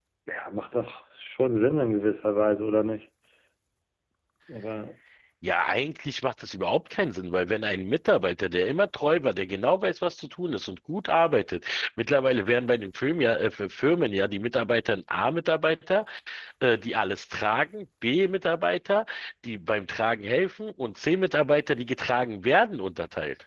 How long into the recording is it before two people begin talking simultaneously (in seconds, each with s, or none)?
none